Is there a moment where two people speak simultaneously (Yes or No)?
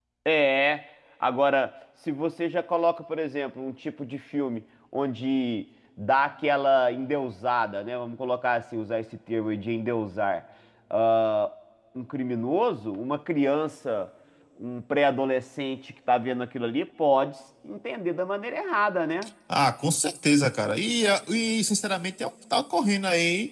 No